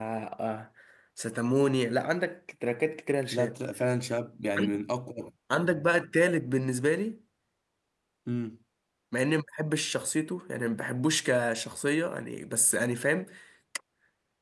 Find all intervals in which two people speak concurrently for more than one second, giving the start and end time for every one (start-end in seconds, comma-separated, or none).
none